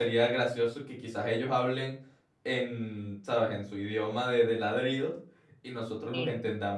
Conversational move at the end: listening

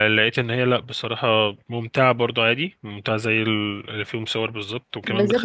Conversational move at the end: taking over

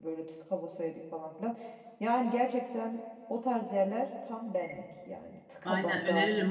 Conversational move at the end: taking over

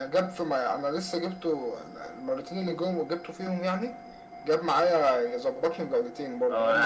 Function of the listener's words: taking over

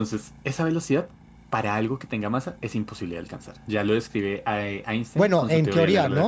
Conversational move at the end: taking over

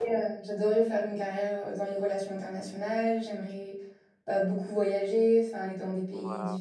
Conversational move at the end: listening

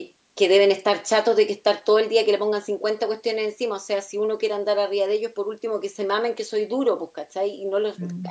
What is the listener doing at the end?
listening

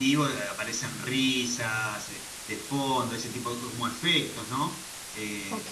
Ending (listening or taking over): listening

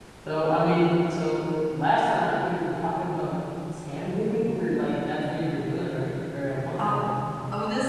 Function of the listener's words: taking over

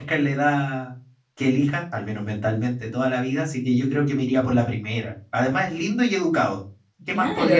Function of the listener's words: taking over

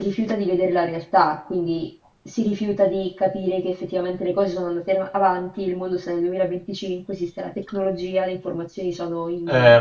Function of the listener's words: taking over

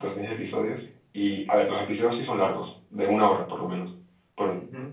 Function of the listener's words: listening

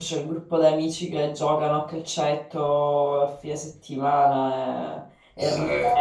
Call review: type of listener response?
listening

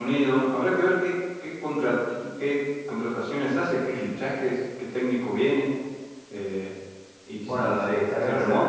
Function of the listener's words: taking over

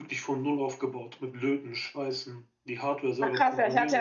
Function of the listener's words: taking over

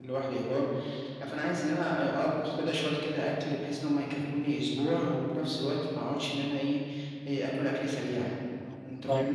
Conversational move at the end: taking over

